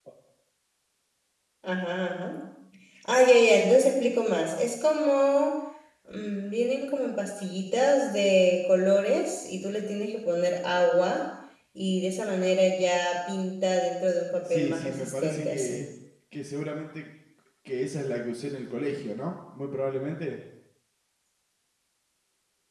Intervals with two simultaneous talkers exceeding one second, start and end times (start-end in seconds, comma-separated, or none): 14.5-15.8